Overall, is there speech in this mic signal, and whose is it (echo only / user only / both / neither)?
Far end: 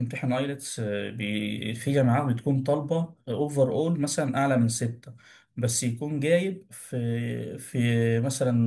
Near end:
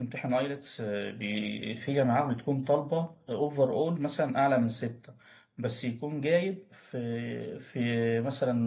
echo only